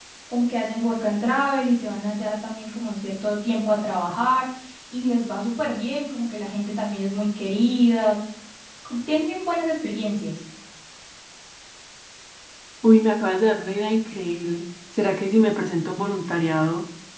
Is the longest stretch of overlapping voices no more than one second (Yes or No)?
Yes